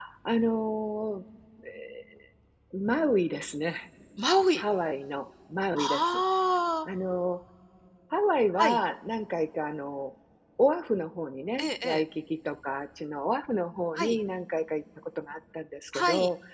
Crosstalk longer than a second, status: none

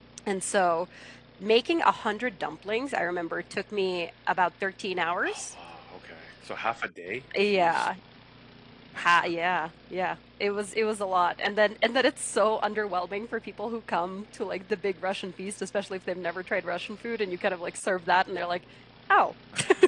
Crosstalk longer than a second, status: none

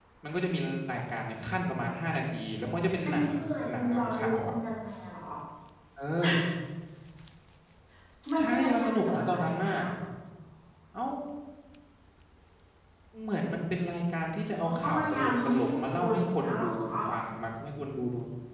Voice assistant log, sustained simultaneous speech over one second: present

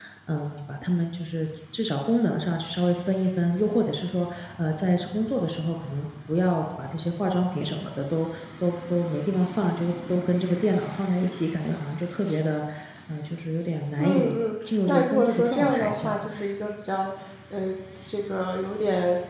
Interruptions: present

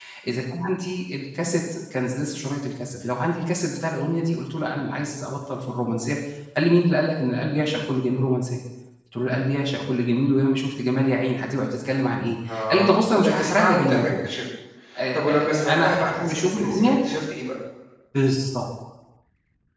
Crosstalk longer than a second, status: present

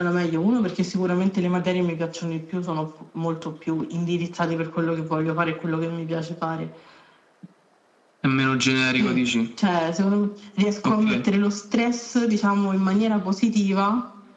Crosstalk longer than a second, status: none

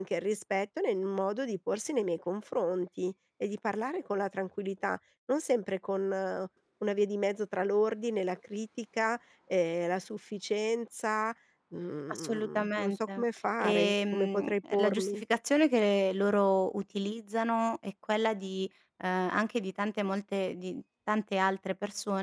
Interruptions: present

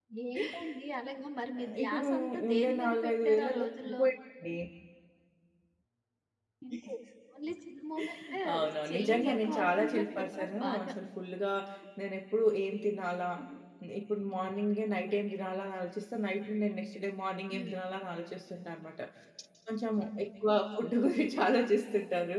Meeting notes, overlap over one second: present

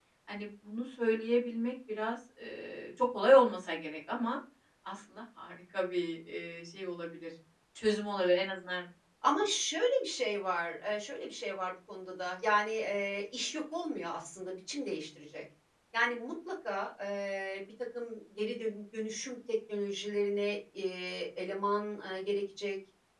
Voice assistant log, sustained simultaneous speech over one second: none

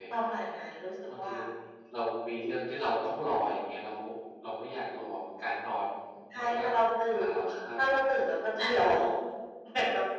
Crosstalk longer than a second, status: none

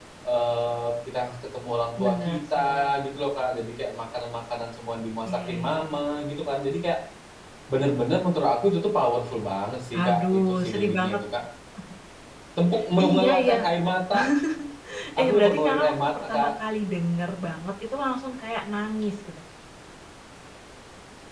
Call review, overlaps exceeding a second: present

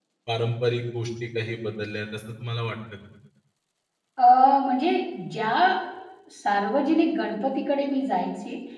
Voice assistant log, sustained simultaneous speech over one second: none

